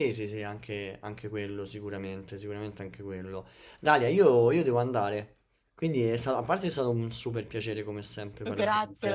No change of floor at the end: No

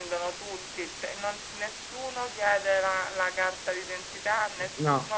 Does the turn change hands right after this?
No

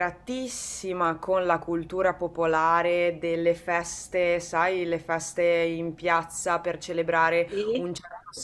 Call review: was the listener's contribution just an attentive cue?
Yes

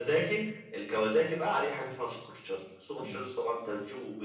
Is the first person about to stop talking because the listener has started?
No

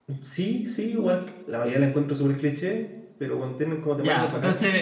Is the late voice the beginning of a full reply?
Yes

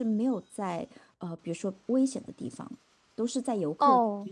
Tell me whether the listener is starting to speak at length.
Yes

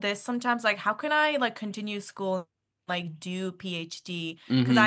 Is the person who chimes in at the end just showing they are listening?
Yes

